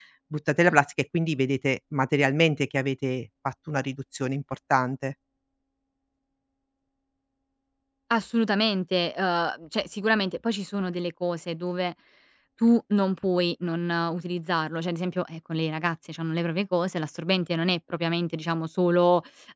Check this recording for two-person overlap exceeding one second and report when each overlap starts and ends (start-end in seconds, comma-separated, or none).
none